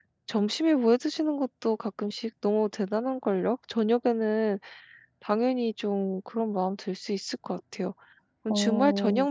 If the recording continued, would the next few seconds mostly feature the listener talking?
No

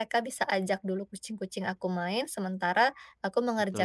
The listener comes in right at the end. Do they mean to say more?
No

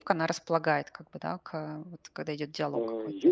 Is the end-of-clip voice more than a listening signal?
Yes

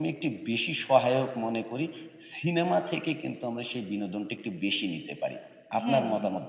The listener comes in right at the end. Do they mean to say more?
Yes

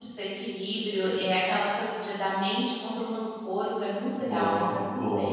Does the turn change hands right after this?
Yes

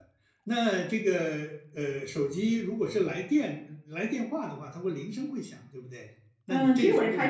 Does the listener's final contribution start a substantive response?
Yes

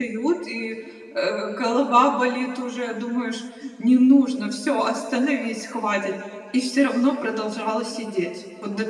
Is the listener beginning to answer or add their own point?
Yes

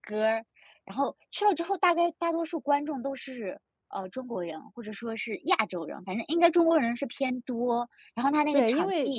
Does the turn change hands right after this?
Yes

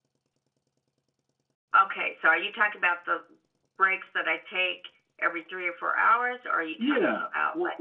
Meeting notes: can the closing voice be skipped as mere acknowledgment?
No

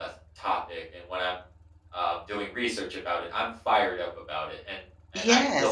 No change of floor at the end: No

